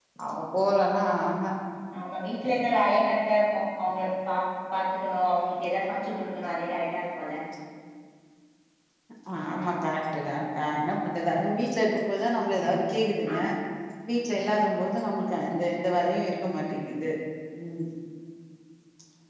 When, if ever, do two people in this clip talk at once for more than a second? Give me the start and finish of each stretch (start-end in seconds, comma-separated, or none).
none